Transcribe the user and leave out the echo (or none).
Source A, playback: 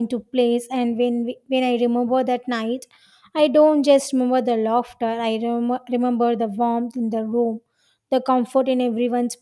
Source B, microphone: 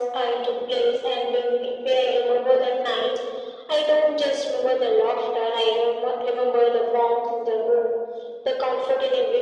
none